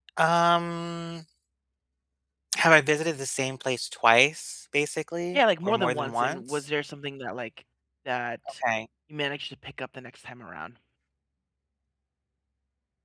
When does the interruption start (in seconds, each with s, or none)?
5.3 s